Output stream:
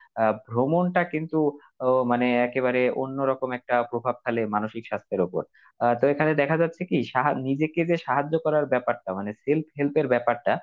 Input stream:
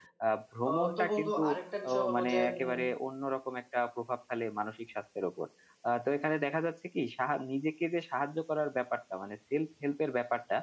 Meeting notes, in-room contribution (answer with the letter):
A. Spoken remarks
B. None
A